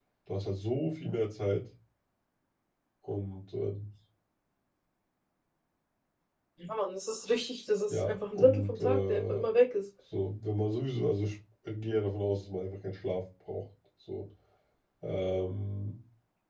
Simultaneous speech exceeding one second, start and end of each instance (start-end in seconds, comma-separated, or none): 7.9-9.4